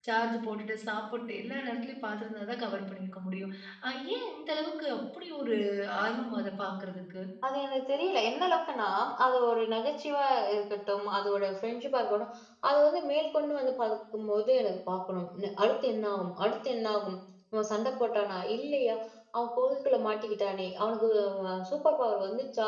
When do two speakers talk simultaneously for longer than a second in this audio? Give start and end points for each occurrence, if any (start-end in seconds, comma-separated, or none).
none